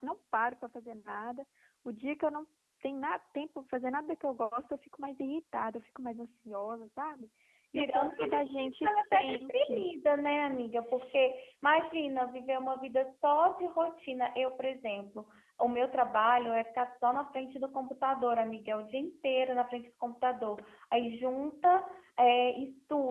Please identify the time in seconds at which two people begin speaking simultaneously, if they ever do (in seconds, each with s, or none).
7.8 s